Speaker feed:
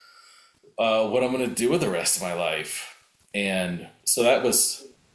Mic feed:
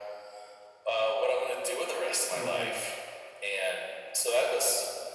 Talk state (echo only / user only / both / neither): both